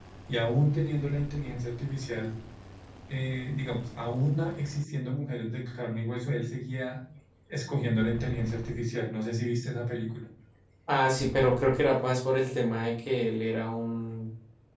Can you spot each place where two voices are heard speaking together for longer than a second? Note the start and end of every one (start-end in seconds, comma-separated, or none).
none